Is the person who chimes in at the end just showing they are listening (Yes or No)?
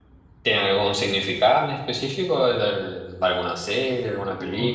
No